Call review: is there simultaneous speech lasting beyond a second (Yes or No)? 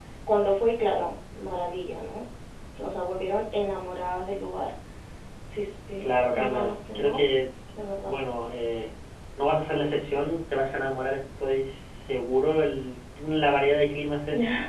Yes